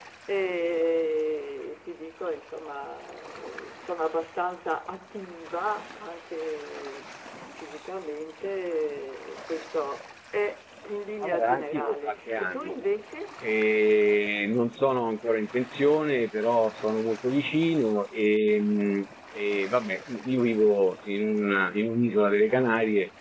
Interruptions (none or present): present